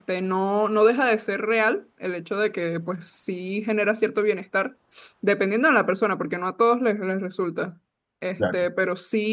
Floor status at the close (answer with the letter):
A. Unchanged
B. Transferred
A